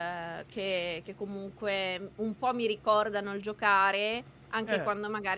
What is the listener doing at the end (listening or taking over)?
listening